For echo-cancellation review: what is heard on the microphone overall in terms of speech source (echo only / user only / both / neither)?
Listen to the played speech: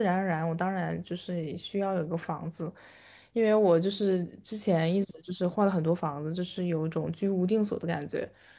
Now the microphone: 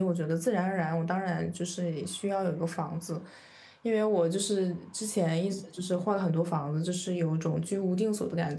echo only